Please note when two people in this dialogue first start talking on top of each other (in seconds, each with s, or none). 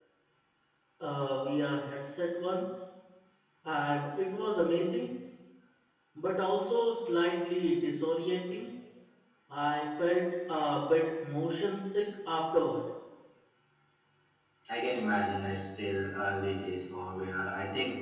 none